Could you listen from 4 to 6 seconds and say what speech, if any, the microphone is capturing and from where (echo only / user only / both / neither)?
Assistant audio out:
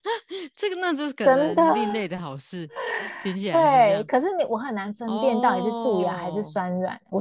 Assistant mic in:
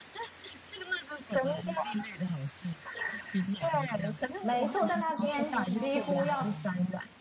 both